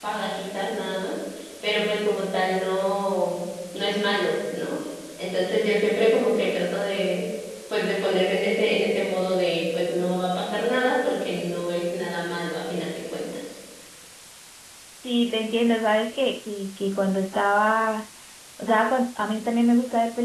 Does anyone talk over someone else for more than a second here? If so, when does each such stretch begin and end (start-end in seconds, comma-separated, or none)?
none